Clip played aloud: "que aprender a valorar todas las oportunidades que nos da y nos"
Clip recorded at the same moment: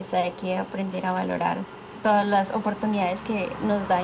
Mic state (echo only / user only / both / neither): echo only